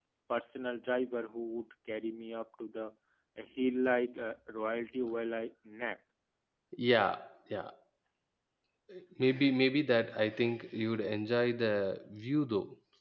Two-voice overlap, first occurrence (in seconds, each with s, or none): none